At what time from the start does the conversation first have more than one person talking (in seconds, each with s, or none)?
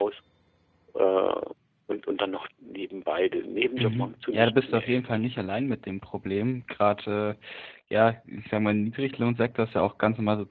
3.8 s